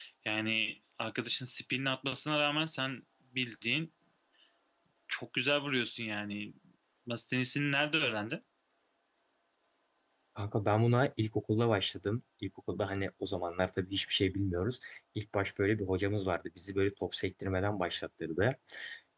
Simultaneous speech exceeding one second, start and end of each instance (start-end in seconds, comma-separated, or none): none